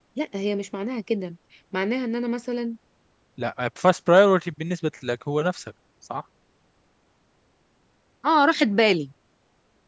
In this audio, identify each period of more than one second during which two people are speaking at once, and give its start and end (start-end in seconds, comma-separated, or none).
none